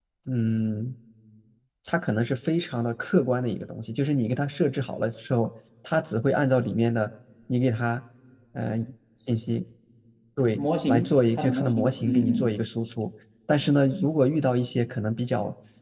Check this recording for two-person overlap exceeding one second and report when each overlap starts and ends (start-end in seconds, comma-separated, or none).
10.6-12.6